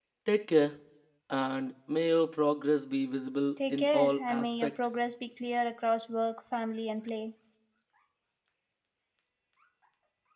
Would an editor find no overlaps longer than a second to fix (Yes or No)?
No